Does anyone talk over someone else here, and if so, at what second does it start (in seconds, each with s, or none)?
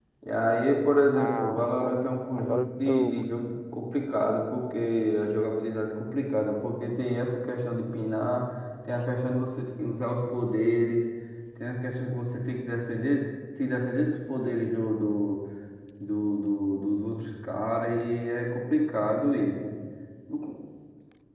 1.1 s